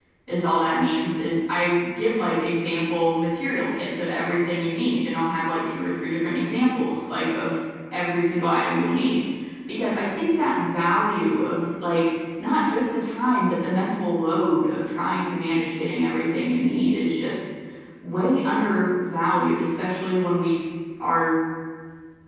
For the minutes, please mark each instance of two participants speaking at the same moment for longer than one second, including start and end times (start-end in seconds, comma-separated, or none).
none